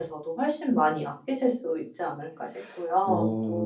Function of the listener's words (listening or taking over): taking over